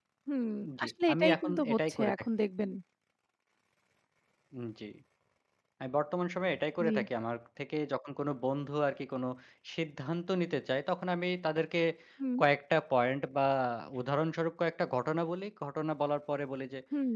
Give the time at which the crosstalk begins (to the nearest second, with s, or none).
1 s